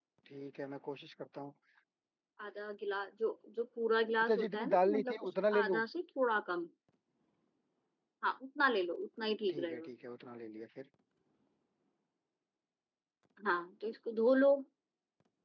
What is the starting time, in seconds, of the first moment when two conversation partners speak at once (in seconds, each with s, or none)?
4.2 s